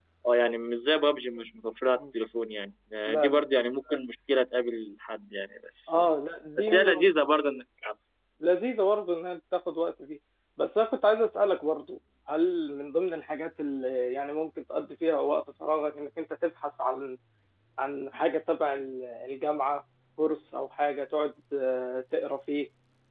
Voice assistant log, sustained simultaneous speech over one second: none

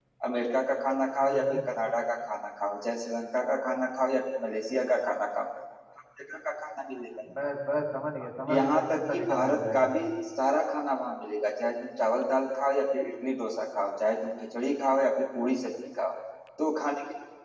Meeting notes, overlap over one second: present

